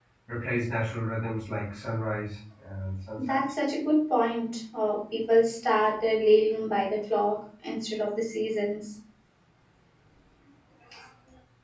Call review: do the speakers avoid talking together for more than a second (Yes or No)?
Yes